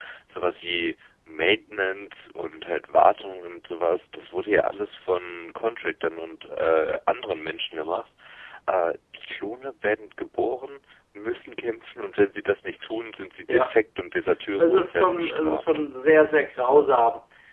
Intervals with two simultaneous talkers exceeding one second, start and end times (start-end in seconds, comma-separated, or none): 14.6-15.8